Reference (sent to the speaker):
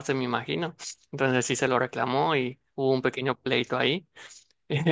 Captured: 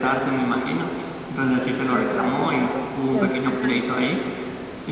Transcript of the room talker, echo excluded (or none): sí, algo, ¿no? Aunque- ajá,